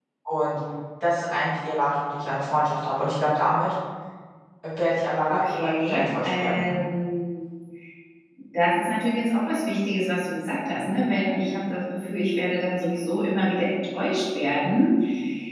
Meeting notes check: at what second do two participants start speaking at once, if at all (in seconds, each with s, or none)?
5.3 s